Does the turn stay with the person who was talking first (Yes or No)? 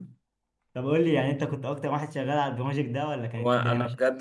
No